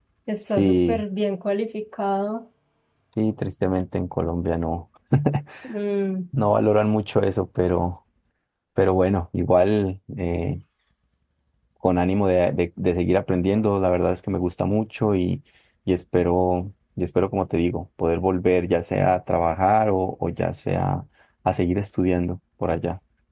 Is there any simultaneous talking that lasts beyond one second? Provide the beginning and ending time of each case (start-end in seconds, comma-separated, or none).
none